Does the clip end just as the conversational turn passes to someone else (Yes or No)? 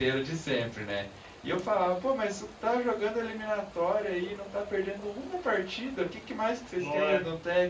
No